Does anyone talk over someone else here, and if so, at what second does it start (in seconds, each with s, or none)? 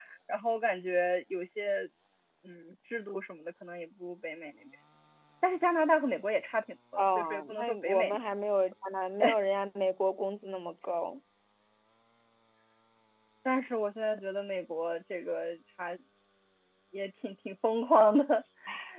7.0 s